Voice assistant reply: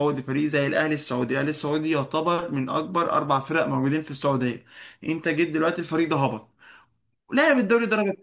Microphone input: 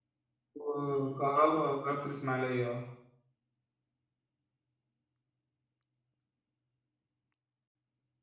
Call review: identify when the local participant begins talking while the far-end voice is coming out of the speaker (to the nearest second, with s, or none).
1 s